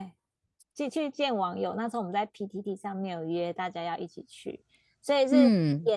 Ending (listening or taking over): listening